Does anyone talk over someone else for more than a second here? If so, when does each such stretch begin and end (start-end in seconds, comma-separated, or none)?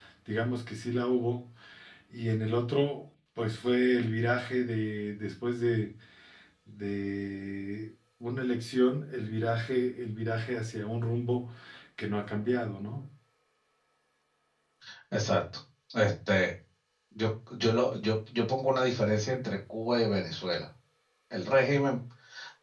none